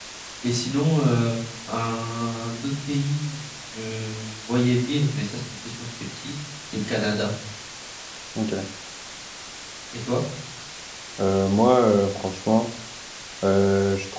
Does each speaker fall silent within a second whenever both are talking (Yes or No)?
Yes